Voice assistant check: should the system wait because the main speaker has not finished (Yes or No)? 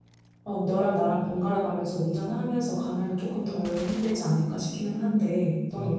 No